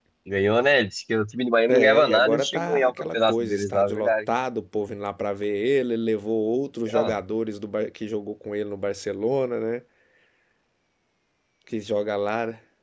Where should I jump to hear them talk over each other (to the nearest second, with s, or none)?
2 s